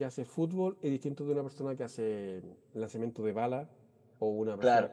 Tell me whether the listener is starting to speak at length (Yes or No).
Yes